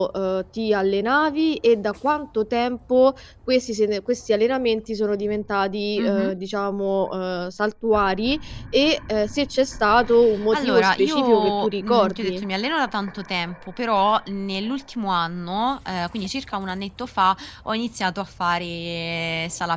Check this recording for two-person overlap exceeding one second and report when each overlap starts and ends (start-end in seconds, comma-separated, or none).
10.5-12.4